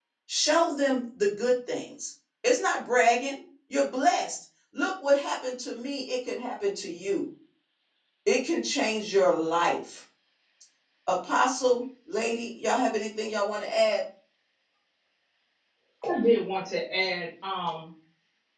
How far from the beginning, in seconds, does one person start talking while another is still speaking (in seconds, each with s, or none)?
none